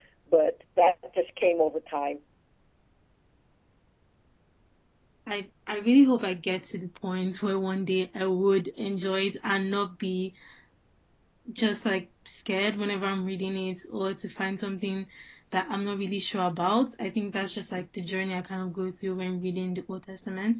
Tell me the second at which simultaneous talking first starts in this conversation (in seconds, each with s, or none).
none